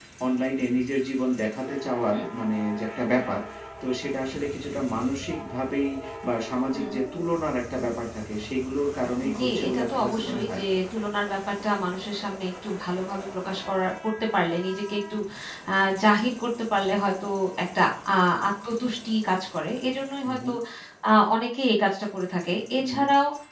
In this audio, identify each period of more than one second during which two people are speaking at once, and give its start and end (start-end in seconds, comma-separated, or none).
9.4-10.6